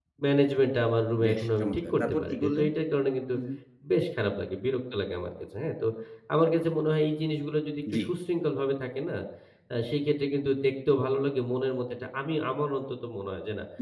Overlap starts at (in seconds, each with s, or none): 1.2 s